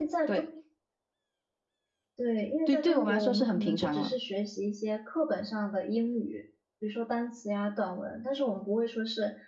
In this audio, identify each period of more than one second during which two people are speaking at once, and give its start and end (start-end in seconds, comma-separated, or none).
2.7-4.1